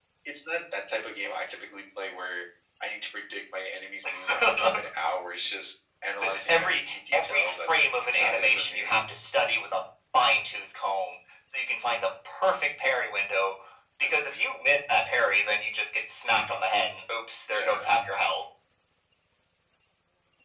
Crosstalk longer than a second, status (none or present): present